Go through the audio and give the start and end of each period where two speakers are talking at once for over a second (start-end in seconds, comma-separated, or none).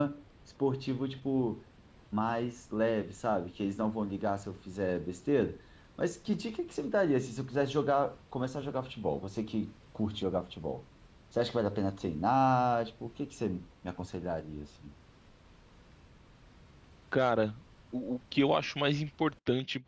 none